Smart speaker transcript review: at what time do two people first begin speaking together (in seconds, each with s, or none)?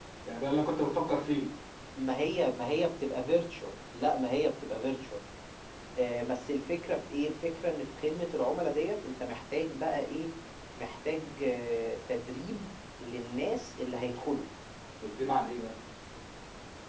none